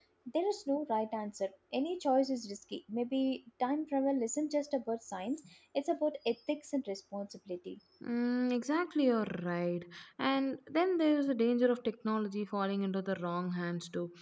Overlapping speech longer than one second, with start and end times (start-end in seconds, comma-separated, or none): none